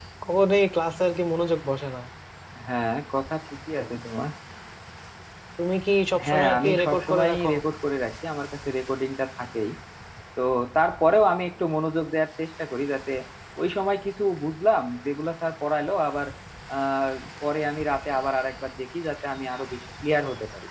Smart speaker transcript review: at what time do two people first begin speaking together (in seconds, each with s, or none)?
6.2 s